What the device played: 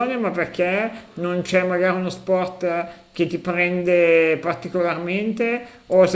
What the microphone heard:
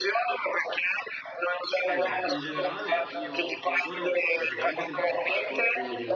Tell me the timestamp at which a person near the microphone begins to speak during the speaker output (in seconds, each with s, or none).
1.8 s